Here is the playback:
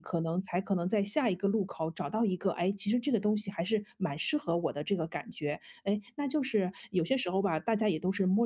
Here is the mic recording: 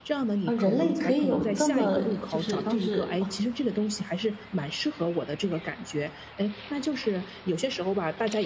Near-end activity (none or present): present